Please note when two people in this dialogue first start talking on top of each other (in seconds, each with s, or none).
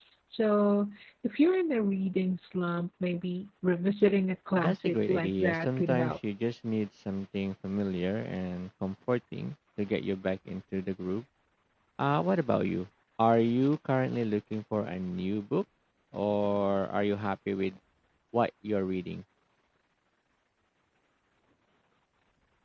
4.6 s